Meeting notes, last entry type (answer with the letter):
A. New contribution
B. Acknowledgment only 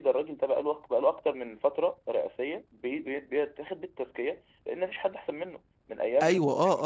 A